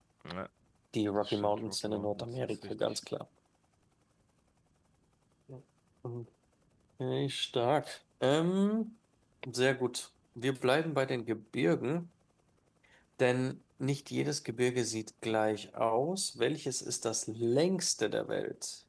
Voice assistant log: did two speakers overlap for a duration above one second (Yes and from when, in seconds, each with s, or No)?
Yes, from 1.2 s